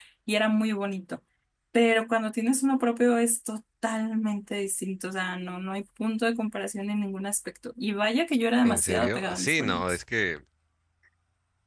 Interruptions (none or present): present